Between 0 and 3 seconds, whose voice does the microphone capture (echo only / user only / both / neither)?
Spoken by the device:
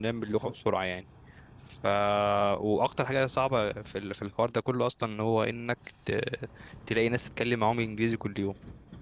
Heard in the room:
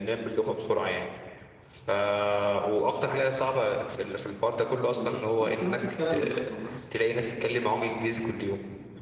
echo only